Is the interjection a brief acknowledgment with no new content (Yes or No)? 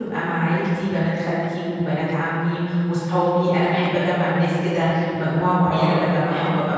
Yes